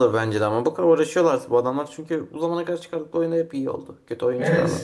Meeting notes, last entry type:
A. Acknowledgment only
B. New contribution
B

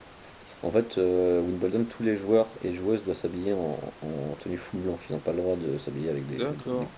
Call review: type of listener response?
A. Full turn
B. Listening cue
A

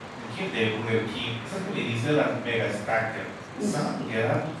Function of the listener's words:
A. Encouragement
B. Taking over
A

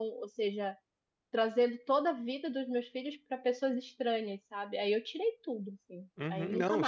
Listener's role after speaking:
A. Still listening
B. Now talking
B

